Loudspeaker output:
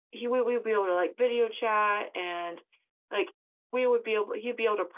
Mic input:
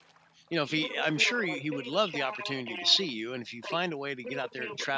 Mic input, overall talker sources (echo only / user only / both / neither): both